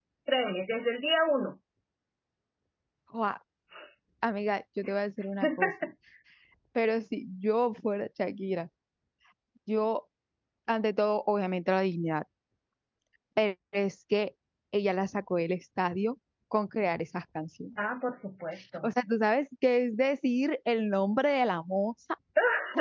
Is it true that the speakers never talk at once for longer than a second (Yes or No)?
Yes